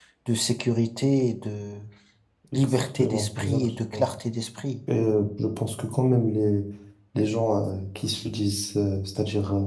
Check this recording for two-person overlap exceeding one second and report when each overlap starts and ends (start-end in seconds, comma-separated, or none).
2.5-4.0